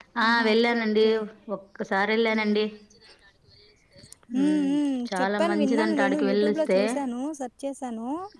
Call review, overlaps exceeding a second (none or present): present